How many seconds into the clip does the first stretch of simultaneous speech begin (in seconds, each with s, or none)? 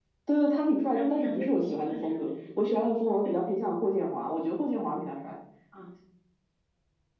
0.9 s